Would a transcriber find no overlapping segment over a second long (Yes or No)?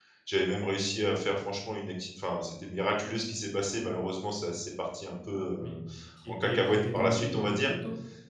No